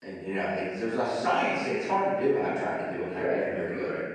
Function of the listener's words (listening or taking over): taking over